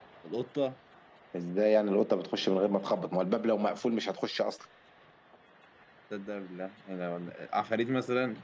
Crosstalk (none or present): none